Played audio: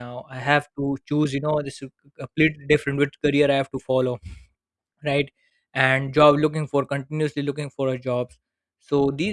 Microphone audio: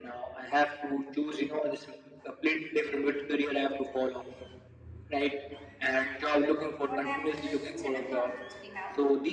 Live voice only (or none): what happened is in seventh onwards we have